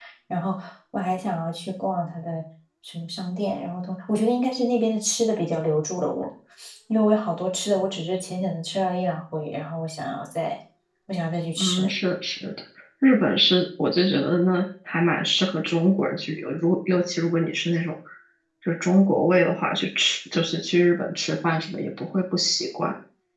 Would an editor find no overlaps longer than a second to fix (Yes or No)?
Yes